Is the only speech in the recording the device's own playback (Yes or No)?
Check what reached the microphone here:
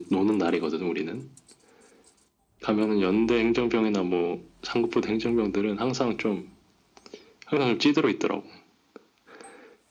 Yes